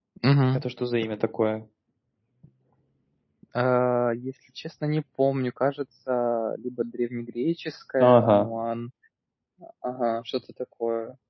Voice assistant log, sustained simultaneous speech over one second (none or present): none